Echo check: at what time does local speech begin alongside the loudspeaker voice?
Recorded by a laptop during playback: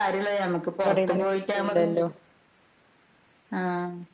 0.9 s

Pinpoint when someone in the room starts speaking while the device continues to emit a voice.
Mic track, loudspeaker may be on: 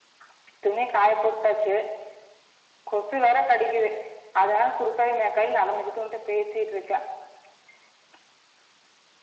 none

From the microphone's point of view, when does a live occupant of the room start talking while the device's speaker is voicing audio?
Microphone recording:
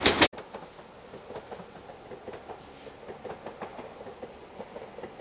none

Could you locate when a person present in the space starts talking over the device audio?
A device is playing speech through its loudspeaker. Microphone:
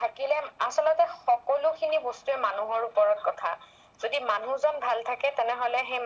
none

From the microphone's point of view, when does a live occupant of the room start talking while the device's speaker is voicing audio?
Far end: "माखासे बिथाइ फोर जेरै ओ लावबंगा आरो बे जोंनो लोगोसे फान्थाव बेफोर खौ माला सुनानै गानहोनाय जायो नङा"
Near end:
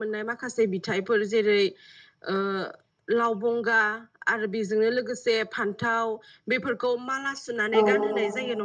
7.7 s

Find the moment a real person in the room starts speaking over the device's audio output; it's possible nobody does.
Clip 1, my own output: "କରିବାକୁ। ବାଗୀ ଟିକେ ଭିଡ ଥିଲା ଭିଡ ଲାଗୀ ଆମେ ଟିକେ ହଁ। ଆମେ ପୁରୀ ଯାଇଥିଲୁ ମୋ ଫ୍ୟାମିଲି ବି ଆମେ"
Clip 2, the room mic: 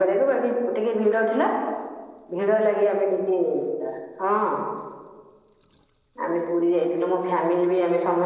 none

